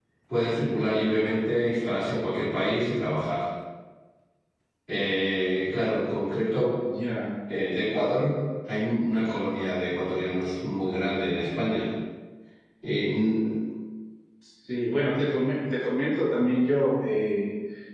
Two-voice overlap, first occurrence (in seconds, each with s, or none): none